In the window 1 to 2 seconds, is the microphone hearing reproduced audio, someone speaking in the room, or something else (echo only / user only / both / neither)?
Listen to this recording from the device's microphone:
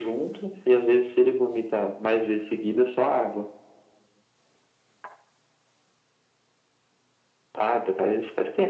echo only